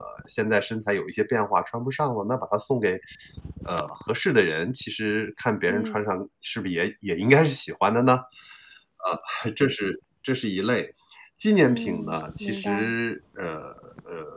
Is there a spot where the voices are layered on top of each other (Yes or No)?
Yes